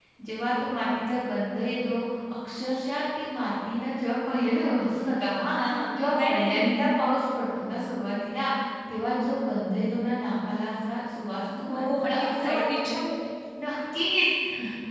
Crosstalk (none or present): present